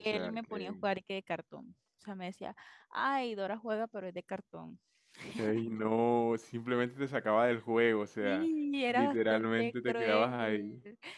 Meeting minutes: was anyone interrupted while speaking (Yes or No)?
Yes